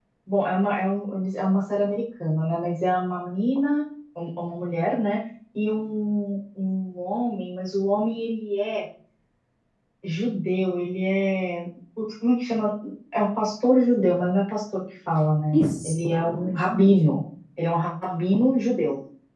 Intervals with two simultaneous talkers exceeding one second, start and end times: 15.5-17.2

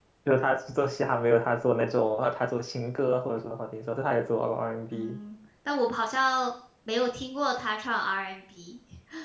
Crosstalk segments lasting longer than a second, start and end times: none

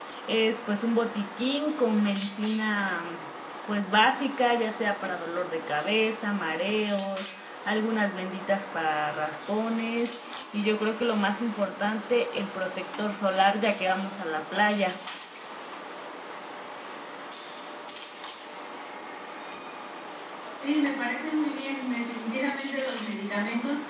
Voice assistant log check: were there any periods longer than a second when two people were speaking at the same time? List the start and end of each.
none

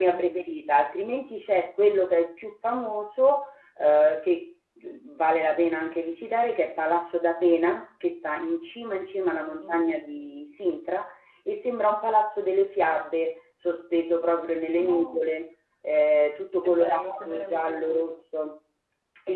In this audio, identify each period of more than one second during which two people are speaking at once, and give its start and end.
16.6-18.0

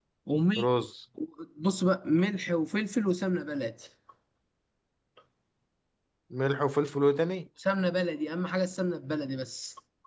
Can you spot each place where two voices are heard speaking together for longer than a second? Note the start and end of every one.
none

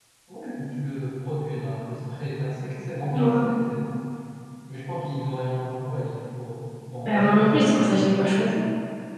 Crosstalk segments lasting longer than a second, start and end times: 7.0-8.4

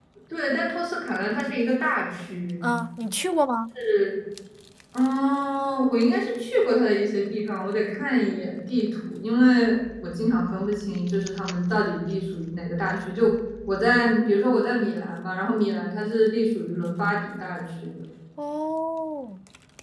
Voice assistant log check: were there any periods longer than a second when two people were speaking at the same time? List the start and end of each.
none

